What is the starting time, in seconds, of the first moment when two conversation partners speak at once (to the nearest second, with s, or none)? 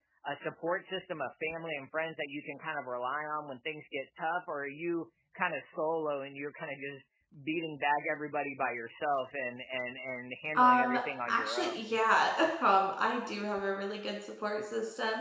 11 s